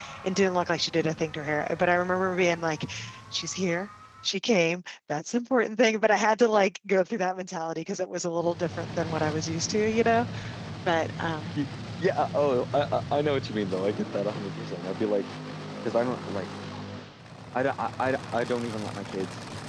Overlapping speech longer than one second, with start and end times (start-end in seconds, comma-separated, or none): none